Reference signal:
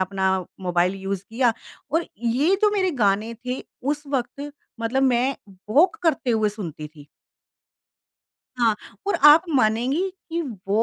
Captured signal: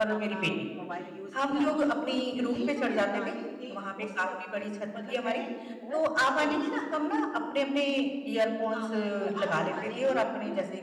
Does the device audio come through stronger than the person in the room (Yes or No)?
No